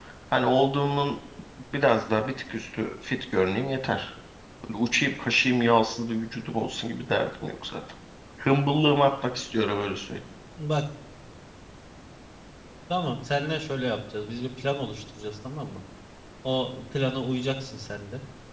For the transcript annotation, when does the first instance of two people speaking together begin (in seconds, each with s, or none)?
none